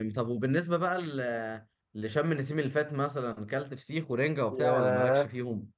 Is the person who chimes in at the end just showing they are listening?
No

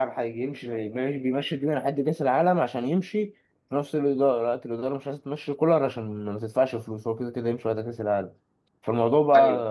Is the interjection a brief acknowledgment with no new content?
Yes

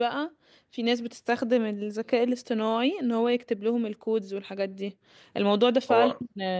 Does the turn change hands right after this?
No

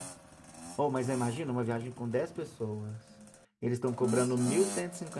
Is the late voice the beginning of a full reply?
No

